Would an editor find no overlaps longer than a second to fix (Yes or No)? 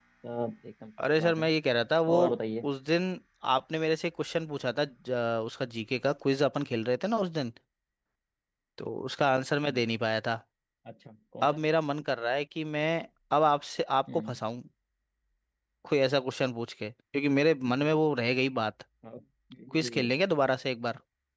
Yes